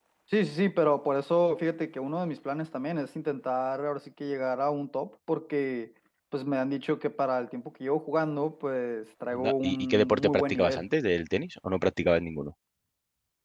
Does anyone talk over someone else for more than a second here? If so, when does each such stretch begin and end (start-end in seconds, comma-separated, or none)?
9.3-10.8